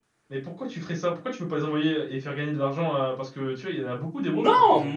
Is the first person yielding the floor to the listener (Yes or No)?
Yes